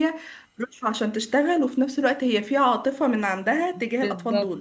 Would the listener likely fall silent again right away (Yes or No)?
No